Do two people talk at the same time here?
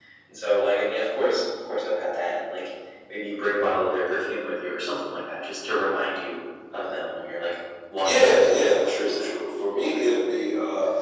Yes, from 8.0 s

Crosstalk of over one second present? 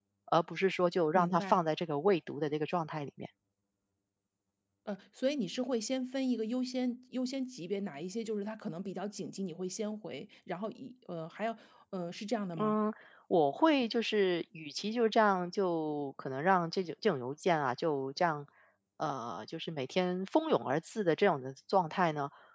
No

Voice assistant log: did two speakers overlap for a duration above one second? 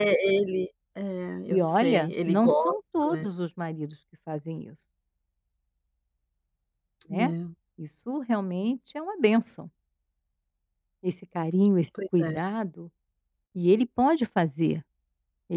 Yes, from 1.5 s

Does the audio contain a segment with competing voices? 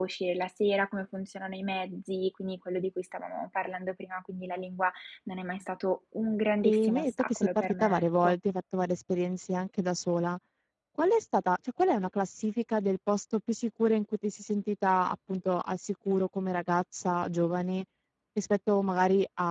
Yes, from 6.6 s

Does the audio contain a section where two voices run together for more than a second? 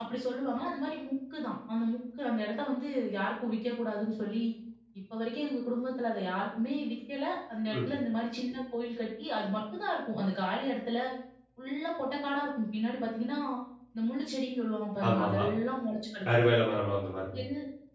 No

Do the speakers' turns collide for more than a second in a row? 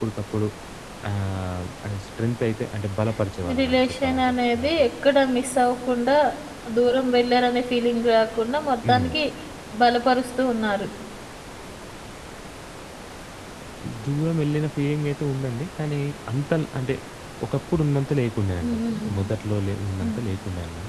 Yes, from 3.4 s

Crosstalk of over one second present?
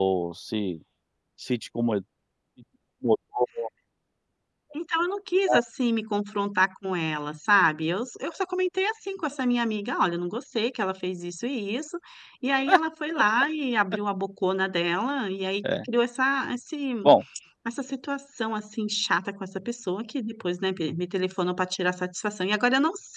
No

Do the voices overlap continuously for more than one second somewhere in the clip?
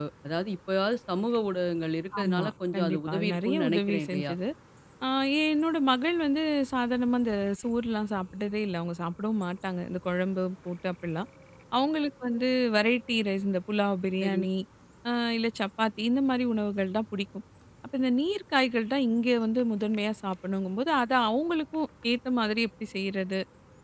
Yes, from 2.1 s

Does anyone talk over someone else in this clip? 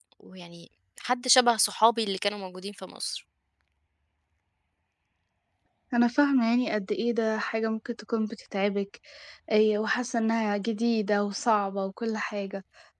No

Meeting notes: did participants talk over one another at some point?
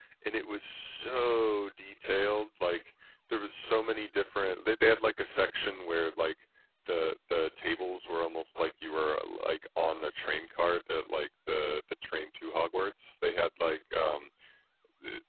No

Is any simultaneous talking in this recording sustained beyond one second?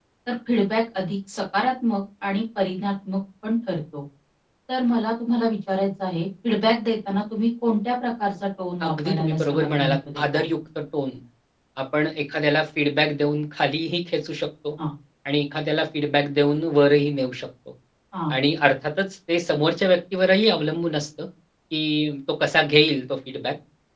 Yes, from 8.8 s

